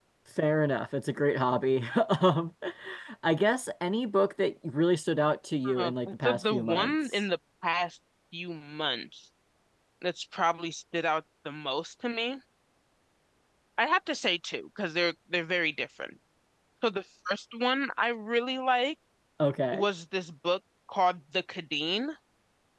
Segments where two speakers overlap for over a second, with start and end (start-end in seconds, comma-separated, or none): 5.8-7.2